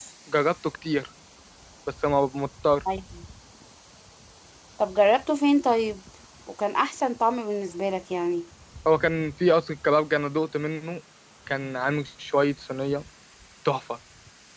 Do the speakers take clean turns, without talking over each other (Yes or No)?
Yes